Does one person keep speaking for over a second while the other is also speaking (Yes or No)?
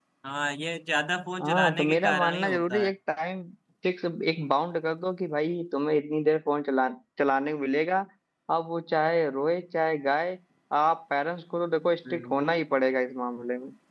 Yes